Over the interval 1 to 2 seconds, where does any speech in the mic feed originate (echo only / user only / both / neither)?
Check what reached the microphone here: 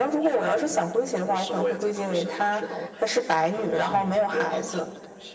echo only